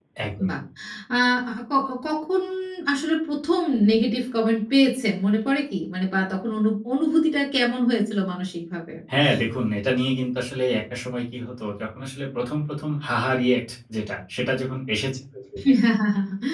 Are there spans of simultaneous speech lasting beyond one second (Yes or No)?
No